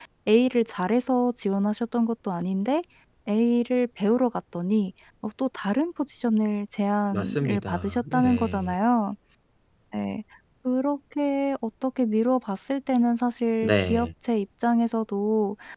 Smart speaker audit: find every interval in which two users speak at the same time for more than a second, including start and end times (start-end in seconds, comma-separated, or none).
7.1-8.8